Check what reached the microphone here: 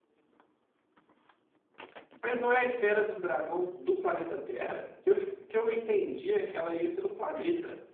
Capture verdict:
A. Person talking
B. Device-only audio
A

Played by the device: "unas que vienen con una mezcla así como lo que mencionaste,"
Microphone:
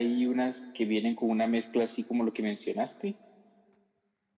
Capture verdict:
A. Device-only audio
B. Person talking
A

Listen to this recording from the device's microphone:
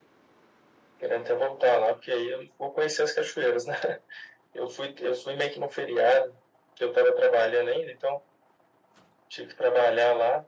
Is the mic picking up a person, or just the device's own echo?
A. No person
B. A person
A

